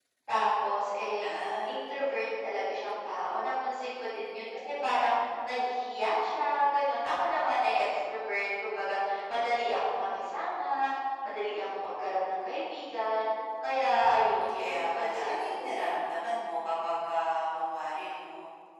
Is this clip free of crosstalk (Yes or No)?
No